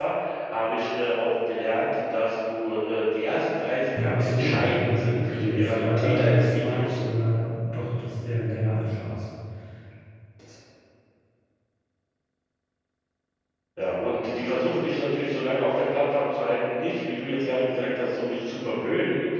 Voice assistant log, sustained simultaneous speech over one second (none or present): present